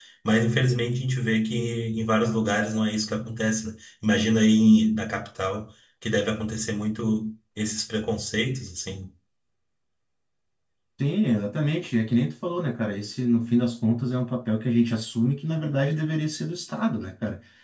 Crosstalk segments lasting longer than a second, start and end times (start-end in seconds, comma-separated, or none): none